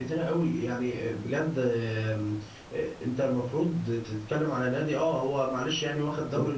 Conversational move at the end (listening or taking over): listening